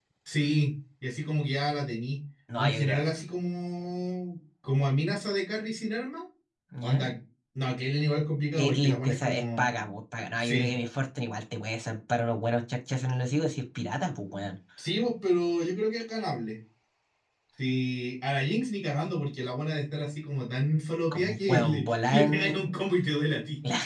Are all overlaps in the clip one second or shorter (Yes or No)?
No